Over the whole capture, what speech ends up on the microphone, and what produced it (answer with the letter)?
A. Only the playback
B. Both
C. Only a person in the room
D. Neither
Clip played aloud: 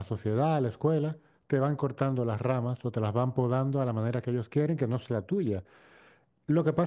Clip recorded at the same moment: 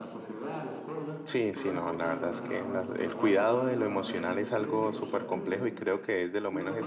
B